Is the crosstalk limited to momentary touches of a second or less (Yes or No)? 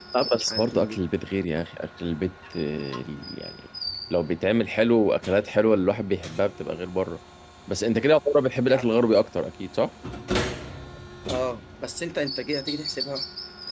Yes